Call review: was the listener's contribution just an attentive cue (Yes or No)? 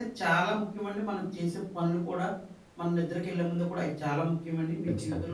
Yes